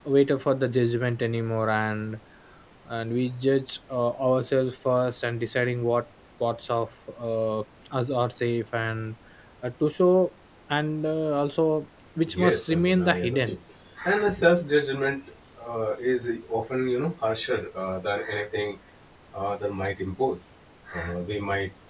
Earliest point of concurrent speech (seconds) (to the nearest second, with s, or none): 12 s